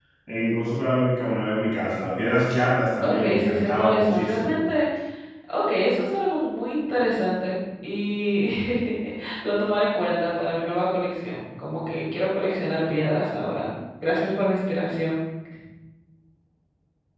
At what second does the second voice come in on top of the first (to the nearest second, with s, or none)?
3 s